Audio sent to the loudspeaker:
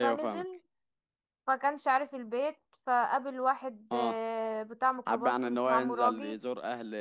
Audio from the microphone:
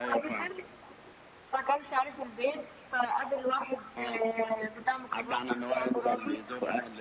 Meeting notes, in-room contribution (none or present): none